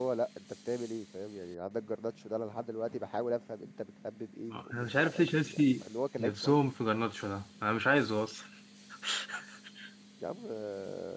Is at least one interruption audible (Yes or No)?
Yes